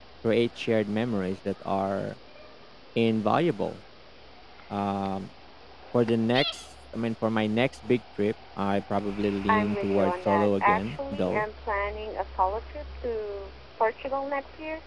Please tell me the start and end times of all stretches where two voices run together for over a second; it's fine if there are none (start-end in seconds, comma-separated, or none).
9.5-11.4